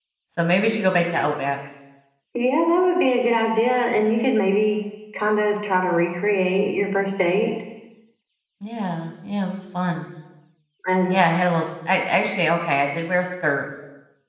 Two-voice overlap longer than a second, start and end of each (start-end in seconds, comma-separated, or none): none